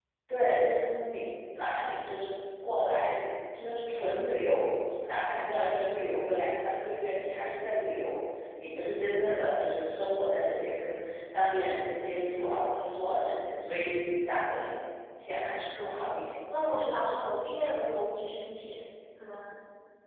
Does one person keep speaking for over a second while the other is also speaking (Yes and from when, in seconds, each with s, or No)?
No